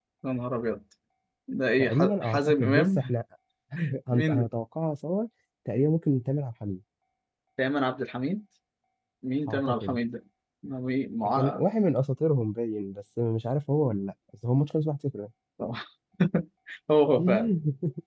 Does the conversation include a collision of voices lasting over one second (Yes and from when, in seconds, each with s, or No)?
Yes, from 1.8 s